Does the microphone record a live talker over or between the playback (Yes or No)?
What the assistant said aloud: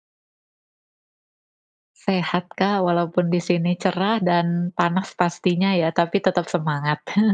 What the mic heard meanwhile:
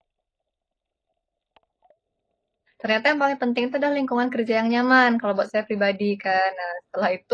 Yes